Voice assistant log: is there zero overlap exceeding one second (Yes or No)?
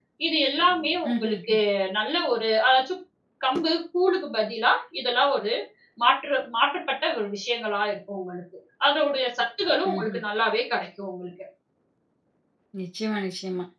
Yes